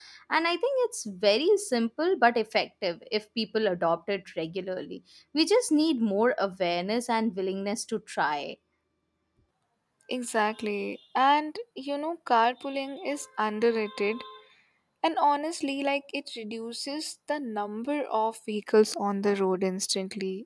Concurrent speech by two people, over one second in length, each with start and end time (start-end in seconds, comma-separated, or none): none